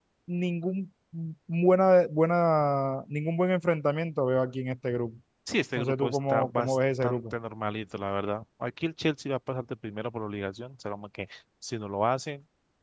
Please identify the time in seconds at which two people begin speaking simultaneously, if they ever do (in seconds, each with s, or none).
5.8 s